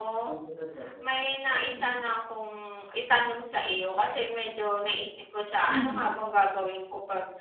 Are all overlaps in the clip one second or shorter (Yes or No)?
Yes